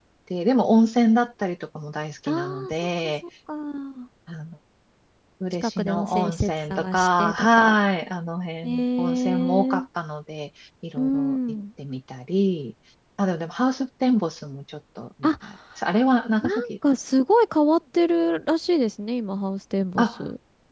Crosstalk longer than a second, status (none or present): present